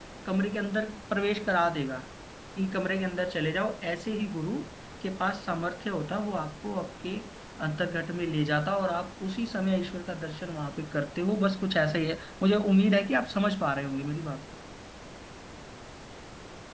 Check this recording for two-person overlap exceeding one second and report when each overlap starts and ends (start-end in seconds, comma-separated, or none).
none